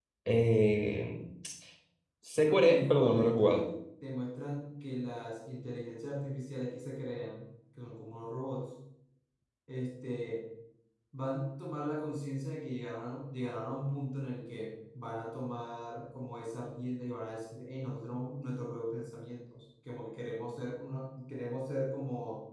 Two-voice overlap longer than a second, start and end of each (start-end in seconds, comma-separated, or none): 2.4-3.7